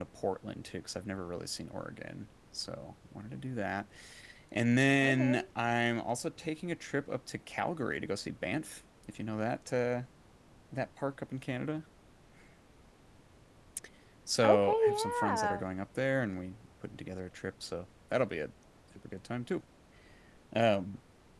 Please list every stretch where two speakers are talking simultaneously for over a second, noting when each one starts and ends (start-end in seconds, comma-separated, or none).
14.4-15.6